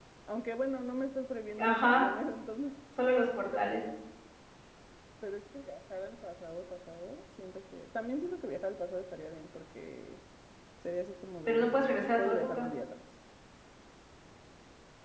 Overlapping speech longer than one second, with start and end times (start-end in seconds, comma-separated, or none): 11.5-12.7